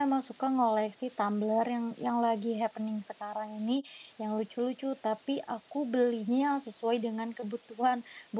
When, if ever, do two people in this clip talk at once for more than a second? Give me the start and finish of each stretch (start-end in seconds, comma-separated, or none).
none